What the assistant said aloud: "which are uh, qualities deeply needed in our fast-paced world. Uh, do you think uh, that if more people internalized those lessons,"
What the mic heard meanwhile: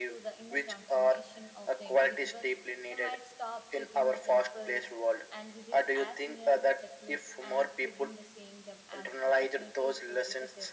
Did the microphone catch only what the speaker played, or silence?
No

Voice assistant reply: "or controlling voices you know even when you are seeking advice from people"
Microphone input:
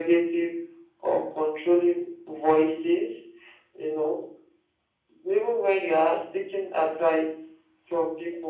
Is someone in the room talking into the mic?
No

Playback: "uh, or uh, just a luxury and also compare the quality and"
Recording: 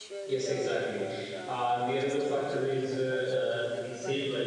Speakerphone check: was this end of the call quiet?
No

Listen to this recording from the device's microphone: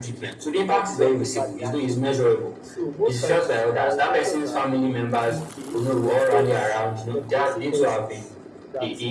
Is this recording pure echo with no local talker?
No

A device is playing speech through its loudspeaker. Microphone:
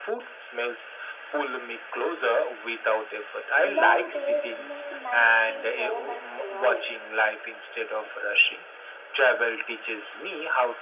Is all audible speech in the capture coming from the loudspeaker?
No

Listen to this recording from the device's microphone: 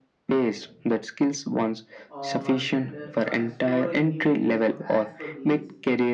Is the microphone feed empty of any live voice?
No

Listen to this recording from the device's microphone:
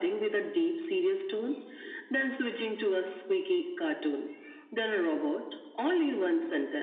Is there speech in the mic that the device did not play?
No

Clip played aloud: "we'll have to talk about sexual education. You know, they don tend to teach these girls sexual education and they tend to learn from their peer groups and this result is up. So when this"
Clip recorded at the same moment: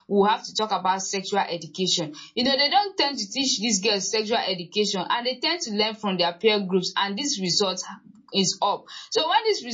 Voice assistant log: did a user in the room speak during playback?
No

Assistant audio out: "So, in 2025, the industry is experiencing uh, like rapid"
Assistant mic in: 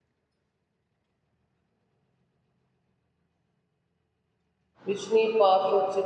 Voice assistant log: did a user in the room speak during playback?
Yes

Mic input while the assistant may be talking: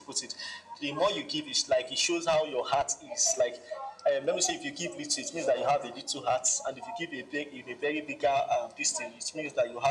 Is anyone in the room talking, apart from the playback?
No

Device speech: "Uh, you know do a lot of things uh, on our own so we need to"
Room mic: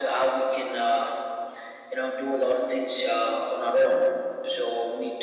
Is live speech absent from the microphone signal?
Yes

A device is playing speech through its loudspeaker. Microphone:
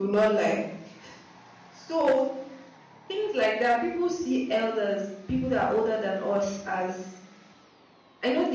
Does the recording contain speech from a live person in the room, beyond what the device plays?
Yes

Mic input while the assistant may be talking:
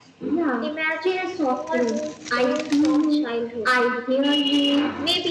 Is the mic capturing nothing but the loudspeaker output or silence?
No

